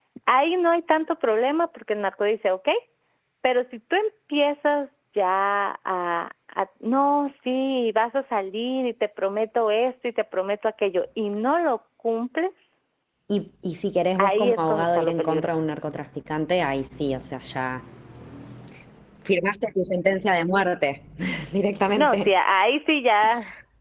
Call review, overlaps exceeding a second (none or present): present